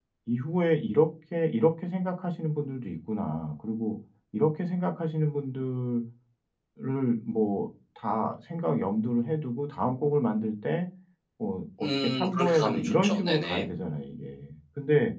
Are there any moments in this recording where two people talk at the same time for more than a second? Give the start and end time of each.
11.8-13.7

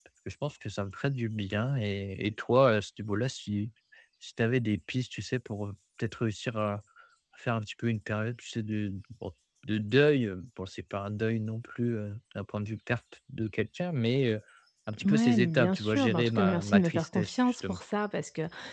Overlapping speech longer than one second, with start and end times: 15.0-17.8

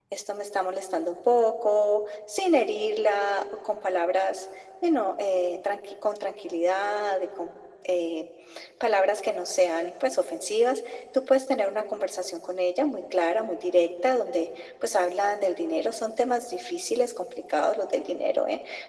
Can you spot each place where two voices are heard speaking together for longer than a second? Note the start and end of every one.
none

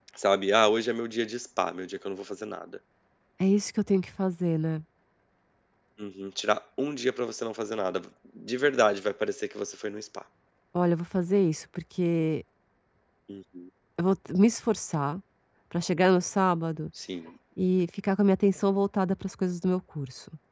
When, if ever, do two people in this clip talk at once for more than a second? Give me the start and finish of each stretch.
none

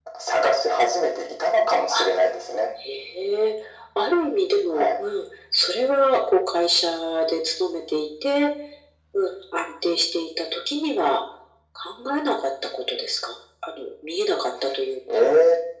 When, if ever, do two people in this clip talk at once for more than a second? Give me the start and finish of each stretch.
none

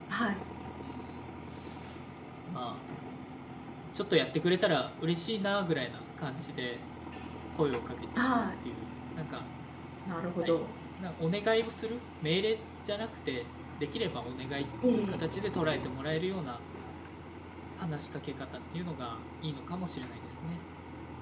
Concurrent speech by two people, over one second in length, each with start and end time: none

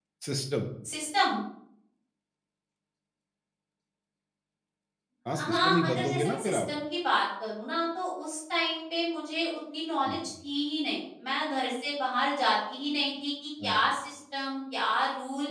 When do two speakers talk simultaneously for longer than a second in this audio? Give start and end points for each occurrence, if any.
5.3-6.6

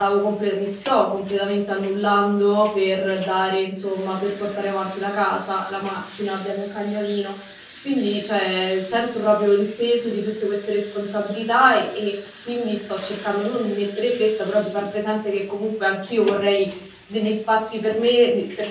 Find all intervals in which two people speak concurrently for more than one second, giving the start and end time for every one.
none

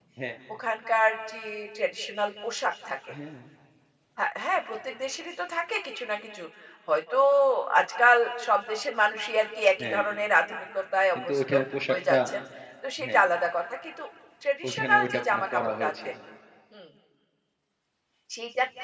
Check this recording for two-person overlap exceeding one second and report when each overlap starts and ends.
14.7-16.1

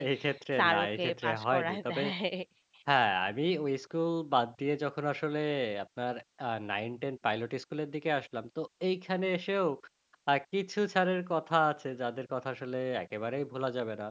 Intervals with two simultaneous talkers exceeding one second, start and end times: 0.6-2.0

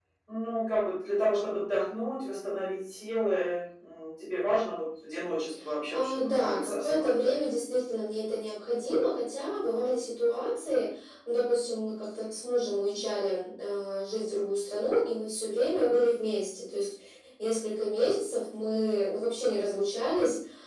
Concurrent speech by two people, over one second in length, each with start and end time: 5.9-7.3

